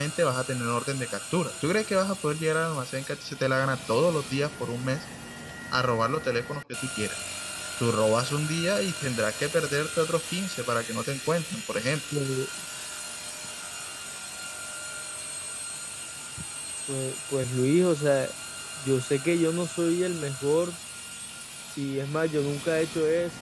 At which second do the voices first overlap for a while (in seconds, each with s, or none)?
none